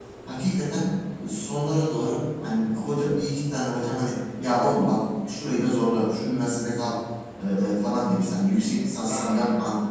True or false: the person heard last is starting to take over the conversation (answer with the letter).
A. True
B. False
B